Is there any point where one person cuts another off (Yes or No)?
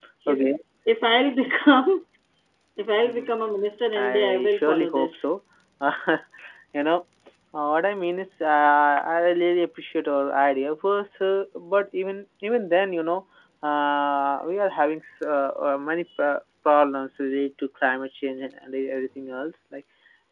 Yes